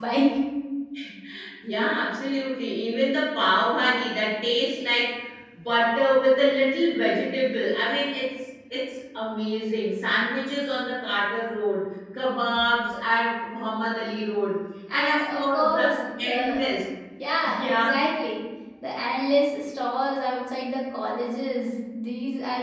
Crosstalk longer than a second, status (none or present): present